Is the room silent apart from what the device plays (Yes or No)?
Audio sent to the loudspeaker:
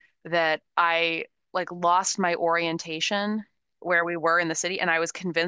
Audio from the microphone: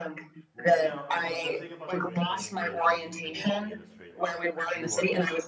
No